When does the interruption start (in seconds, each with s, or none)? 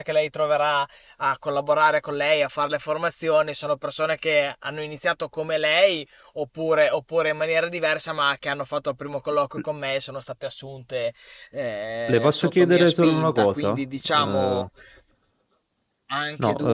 12.1 s